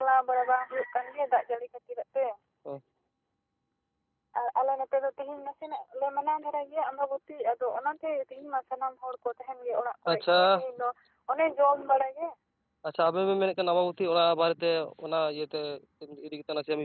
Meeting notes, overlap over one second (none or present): none